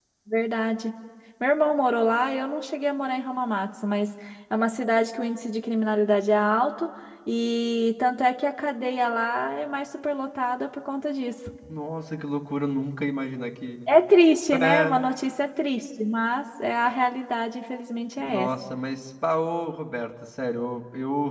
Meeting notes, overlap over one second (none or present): none